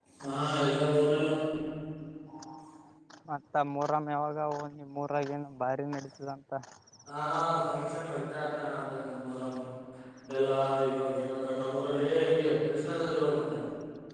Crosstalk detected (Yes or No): No